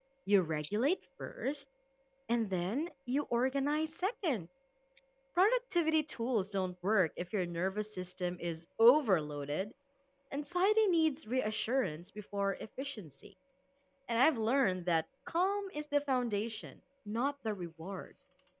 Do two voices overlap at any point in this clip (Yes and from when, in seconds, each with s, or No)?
No